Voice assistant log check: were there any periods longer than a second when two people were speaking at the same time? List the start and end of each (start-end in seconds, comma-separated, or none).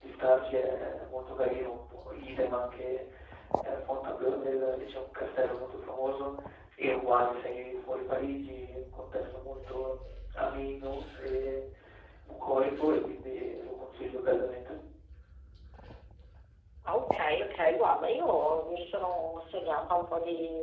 none